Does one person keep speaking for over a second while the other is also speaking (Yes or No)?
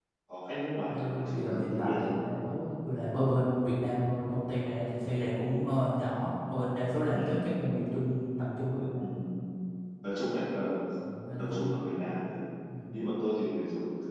Yes